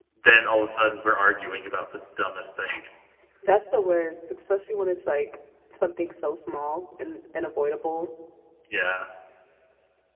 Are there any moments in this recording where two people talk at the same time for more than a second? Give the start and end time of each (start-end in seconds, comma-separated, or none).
none